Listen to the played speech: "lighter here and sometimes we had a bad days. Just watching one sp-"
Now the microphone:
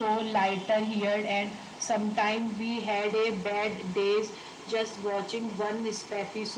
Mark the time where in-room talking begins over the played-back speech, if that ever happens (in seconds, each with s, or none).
none